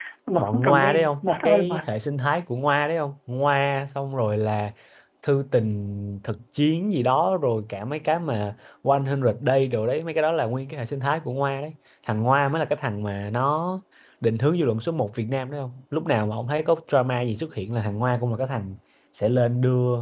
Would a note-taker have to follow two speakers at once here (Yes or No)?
Yes